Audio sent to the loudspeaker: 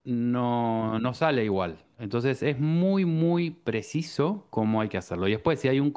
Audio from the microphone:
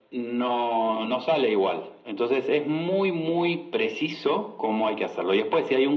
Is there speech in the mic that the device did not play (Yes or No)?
No